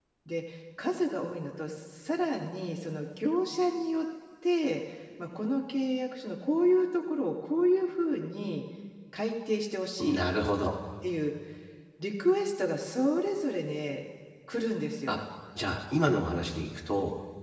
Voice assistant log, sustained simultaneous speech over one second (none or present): none